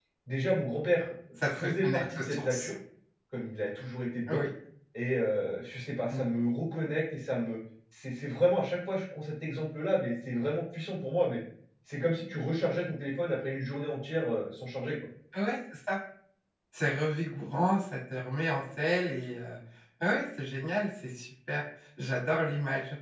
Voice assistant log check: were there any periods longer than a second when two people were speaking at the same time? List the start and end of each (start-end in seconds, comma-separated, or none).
1.4-2.7